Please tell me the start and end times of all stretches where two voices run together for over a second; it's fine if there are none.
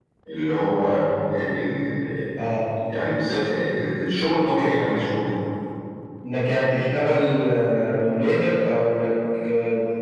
none

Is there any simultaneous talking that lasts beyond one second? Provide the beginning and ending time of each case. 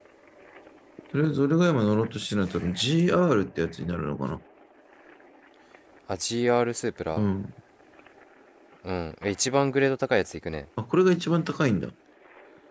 none

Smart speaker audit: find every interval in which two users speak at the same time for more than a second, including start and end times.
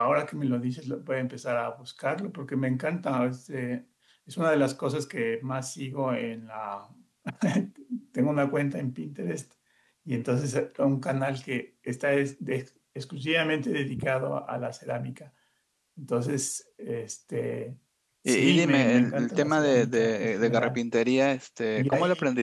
18.3-20.8

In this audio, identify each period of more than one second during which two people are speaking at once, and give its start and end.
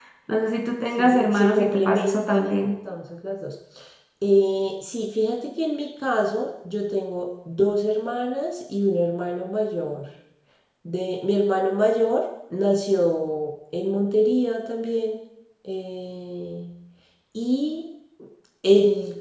1.0-2.6

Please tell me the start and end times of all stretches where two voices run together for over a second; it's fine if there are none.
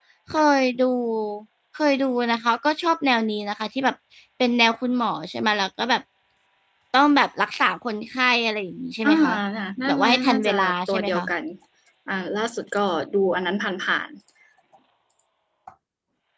9.8-11.2

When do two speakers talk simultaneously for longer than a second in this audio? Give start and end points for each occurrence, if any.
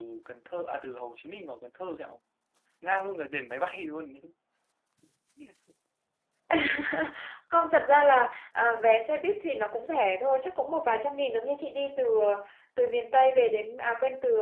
none

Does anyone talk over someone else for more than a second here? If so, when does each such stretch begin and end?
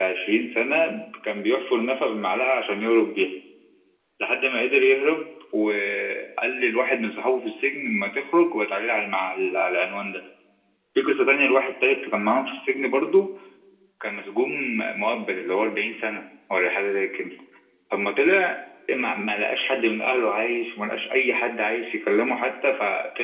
none

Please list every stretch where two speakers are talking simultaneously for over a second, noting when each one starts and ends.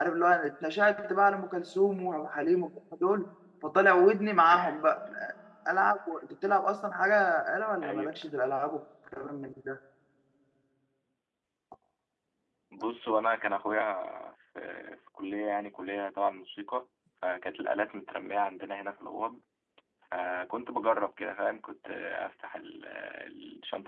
none

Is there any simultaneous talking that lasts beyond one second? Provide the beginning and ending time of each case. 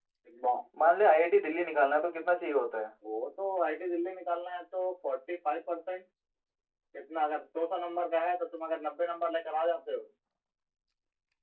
none

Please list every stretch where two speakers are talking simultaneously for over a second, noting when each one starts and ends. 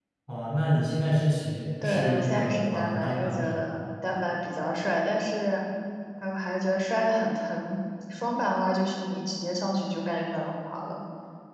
1.8-3.7

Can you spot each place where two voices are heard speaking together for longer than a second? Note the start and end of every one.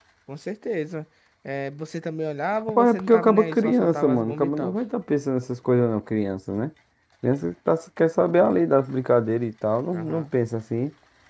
2.7-4.8

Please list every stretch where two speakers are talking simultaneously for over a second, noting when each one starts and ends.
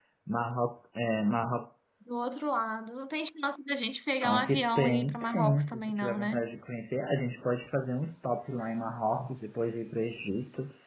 4.2-6.4

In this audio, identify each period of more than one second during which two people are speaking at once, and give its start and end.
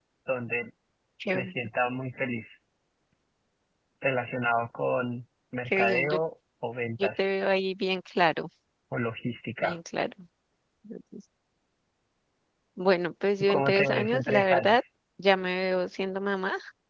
13.5-14.8

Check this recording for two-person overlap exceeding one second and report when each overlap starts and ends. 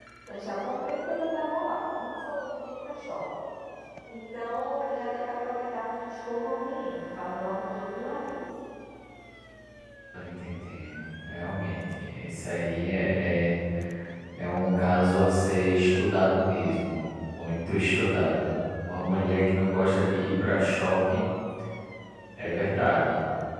none

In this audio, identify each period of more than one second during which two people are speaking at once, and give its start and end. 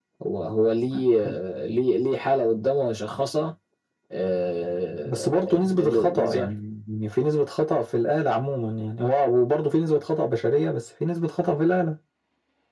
5.0-6.5

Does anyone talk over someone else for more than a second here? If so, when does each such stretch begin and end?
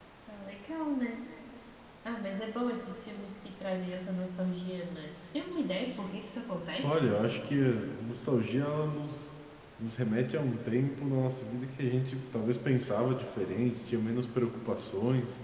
none

